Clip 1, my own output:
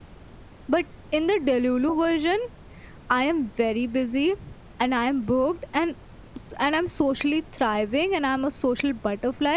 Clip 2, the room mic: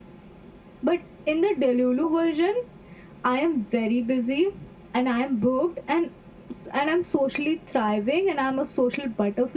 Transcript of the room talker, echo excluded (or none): none